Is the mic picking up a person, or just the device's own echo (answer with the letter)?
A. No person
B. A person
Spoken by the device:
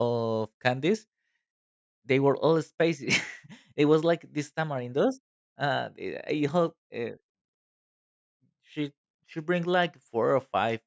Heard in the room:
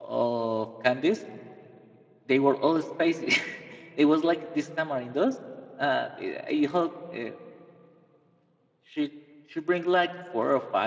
A